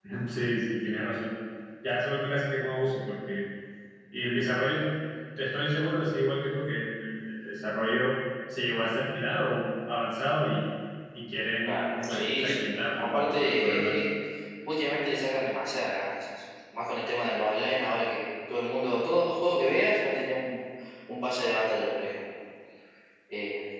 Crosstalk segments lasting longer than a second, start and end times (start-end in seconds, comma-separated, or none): 11.7-14.0